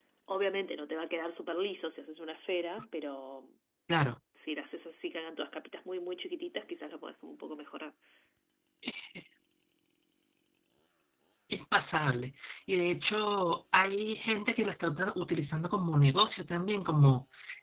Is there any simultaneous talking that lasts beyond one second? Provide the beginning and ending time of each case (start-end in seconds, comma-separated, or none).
none